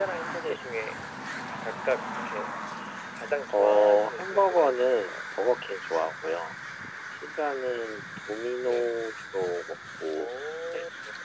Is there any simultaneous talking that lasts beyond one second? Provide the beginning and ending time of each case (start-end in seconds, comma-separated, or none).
3.5-5.1